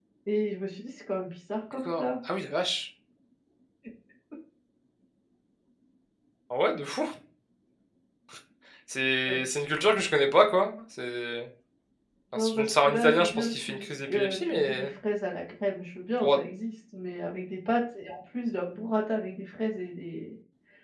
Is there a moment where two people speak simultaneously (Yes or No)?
Yes